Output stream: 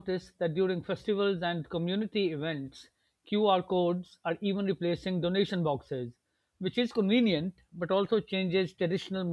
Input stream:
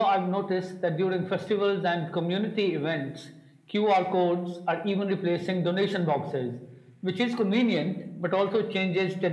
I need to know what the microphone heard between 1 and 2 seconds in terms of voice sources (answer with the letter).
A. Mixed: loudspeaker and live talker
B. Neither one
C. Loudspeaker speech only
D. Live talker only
C